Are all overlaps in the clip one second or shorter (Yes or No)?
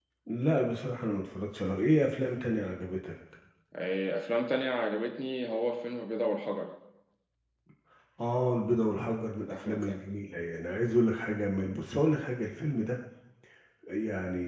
Yes